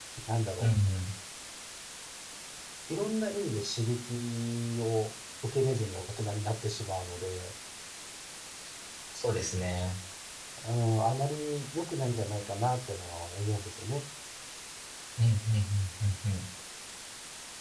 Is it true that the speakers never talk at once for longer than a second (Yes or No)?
Yes